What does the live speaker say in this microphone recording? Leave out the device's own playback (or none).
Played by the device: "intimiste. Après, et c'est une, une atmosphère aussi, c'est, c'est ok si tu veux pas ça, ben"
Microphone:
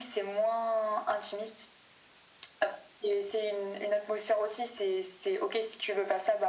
none